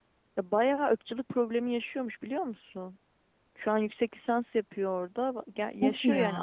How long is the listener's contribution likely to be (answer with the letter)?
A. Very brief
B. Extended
A